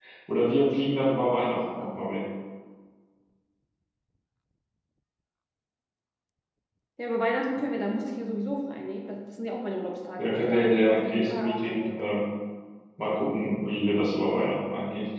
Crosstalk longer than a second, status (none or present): present